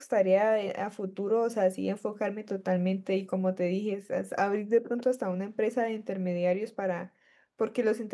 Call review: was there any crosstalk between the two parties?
No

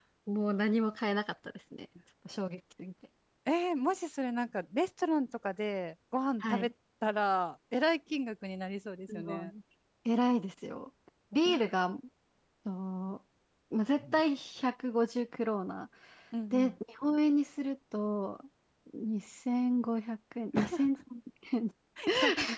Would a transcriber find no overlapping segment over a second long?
Yes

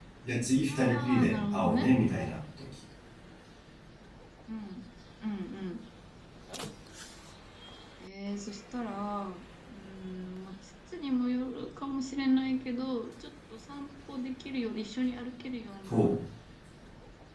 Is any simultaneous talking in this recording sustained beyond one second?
Yes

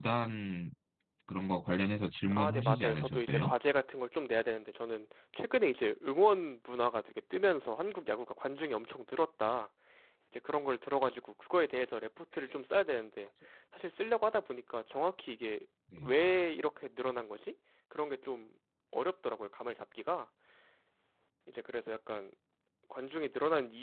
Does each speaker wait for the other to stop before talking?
No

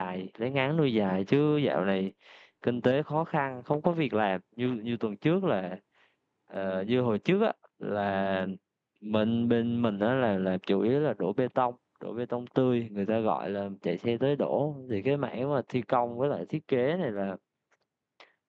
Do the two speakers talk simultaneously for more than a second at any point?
No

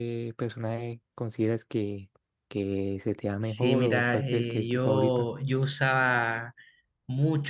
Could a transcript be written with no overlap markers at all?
No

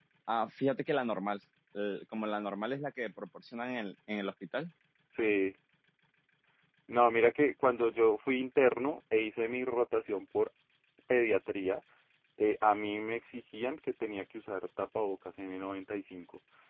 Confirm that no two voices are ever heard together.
Yes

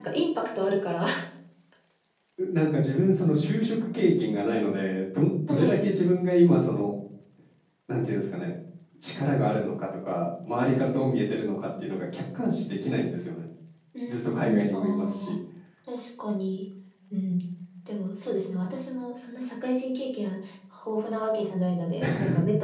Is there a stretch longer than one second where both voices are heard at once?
Yes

